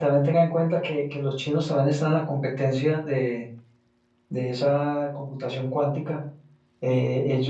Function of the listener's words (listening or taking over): listening